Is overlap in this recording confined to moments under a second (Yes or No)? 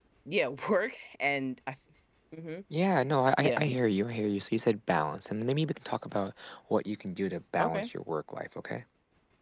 Yes